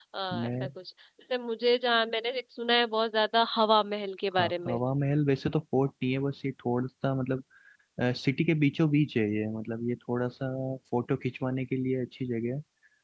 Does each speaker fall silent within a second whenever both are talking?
Yes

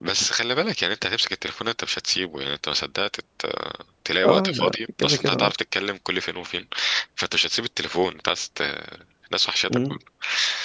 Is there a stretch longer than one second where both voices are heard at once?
Yes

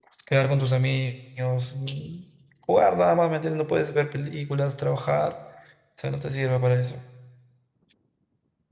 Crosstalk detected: No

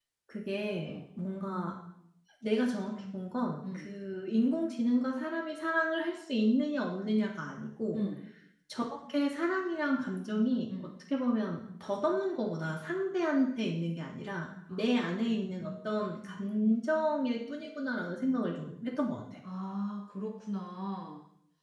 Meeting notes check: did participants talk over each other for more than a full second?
No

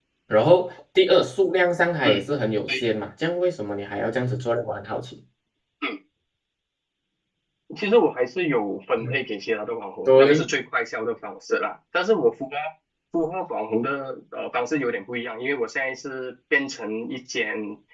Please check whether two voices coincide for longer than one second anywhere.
No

